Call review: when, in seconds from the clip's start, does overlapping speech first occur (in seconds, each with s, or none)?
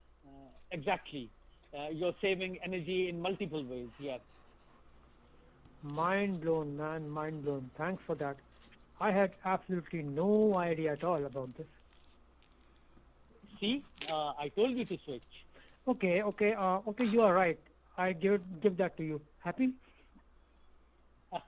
none